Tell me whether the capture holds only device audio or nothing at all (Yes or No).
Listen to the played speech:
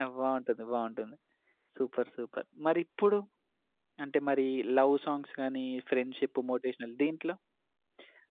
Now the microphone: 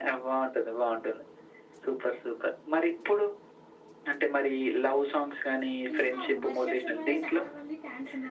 No